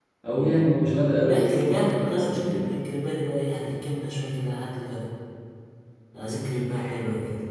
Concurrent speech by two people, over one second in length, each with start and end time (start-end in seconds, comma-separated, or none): 1.3-2.7